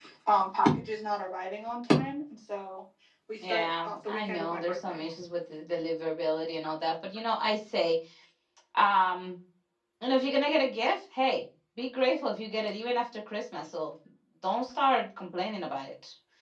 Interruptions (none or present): present